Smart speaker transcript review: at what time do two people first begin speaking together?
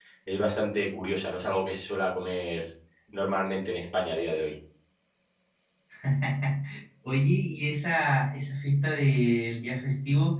none

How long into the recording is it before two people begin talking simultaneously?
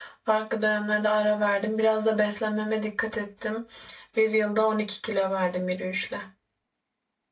none

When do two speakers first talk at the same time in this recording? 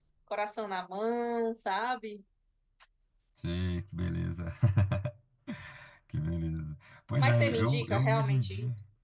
7 s

